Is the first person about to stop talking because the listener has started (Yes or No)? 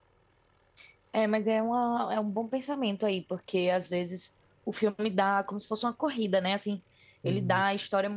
No